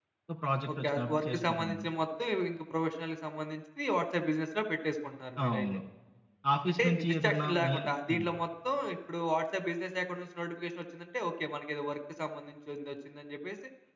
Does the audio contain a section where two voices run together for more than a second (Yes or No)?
Yes